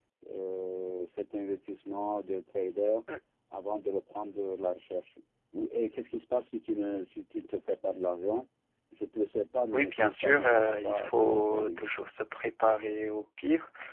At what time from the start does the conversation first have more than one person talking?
9.7 s

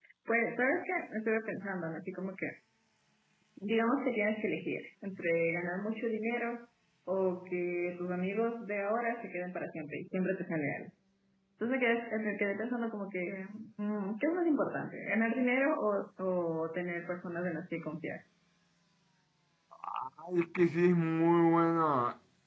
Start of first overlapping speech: none

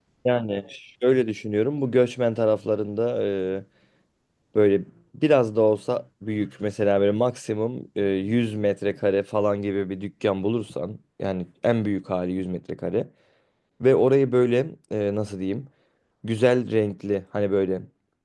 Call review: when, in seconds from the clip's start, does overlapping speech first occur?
none

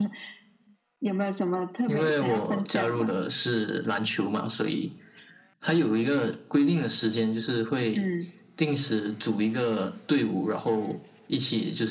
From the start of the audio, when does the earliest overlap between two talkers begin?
1.9 s

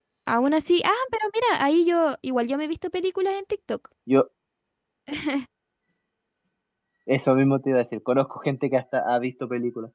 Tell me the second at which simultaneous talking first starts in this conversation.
none

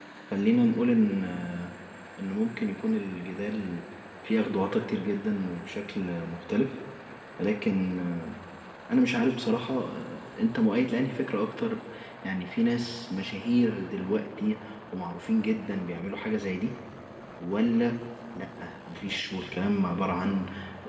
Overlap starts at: none

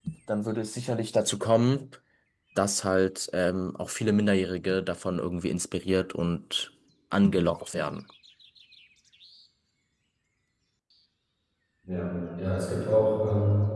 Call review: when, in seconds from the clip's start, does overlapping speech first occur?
none

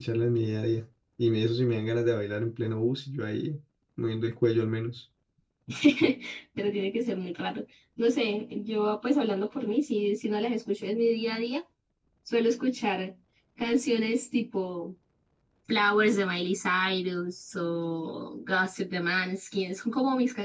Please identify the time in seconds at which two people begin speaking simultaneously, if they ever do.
none

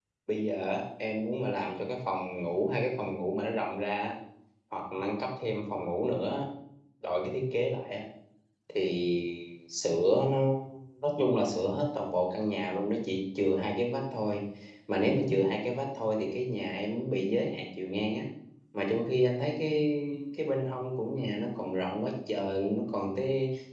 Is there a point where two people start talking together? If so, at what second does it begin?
none

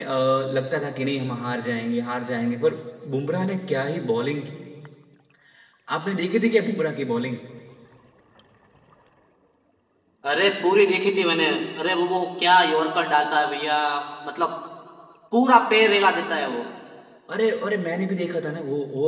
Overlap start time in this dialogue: none

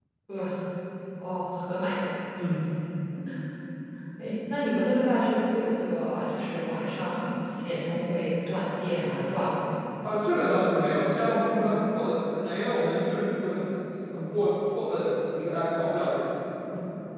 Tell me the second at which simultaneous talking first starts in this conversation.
none

